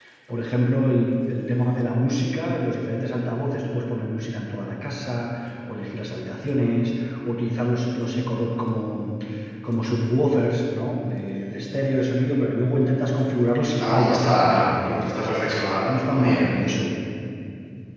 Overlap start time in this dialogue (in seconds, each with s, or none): 13.8 s